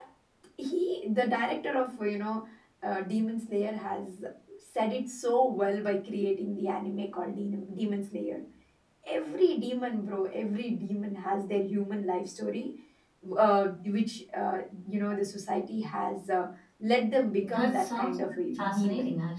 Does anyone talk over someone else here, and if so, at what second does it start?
17 s

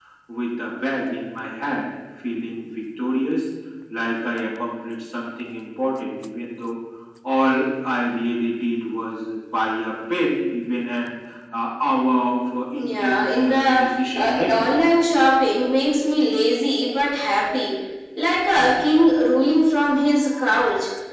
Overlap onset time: 13 s

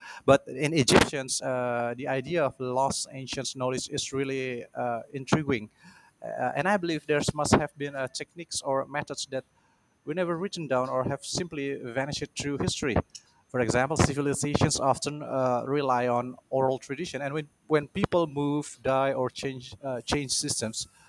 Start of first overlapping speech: none

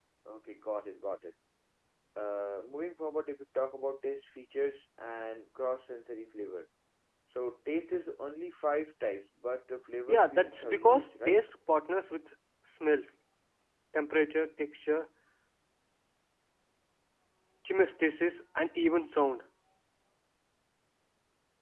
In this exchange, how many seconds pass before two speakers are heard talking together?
10 s

